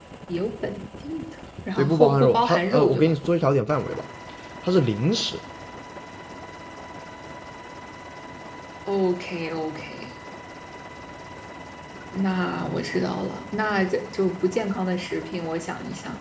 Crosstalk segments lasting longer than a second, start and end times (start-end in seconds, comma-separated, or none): 1.8-3.1